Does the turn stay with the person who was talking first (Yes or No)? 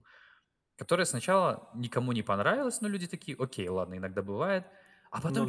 Yes